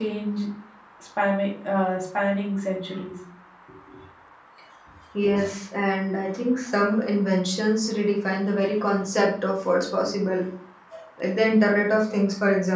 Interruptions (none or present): none